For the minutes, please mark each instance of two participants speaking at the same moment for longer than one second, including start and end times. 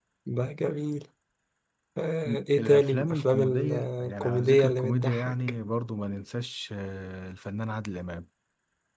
2.2-5.3

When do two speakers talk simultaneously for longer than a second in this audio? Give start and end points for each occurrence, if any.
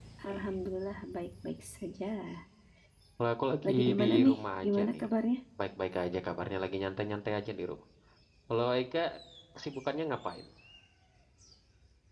3.6-5.0

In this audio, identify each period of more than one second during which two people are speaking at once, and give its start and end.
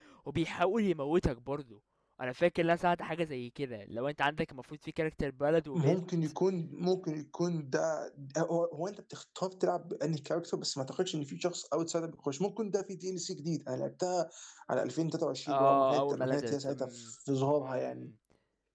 15.5-16.9

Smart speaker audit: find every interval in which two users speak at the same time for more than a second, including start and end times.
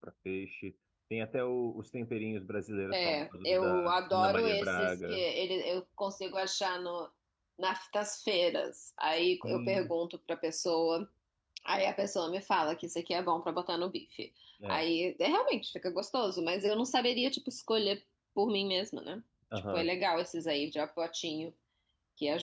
2.9-5.2

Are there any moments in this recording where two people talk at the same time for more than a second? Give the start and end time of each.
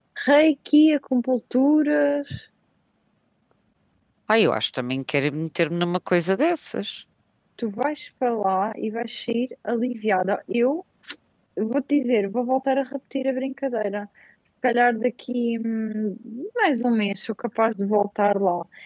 none

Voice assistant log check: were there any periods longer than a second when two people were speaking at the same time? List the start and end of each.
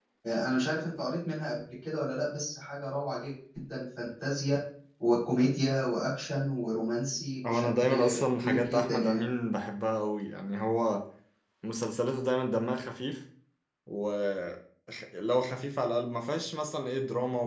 7.5-9.2

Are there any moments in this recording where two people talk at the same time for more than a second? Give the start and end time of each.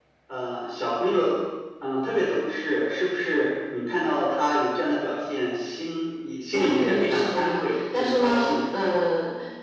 6.5-8.6

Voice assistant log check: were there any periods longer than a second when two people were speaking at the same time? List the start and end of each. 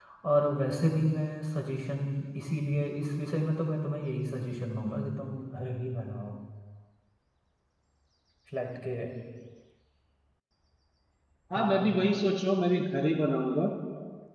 none

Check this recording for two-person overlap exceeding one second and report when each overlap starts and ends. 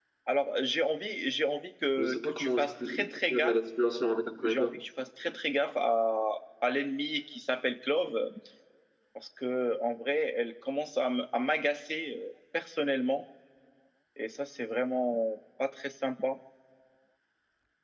2.0-3.6

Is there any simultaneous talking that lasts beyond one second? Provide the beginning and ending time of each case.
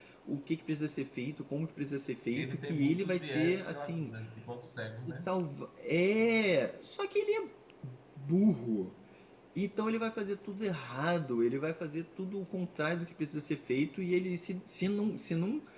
2.4-4.1

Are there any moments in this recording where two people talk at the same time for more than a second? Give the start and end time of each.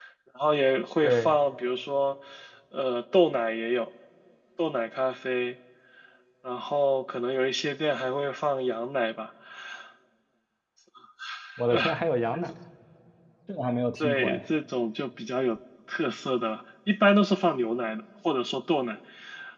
none

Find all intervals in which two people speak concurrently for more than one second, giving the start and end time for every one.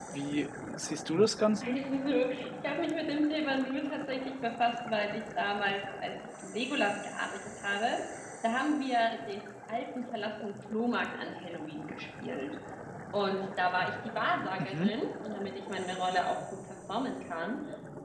none

